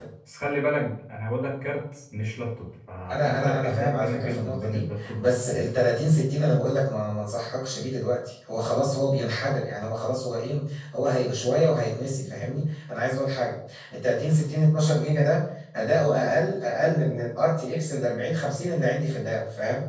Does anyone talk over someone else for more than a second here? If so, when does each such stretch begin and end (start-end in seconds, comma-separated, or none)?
3.1-5.7